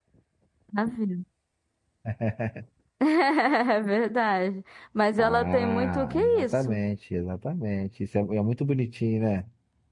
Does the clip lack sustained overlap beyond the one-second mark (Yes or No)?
No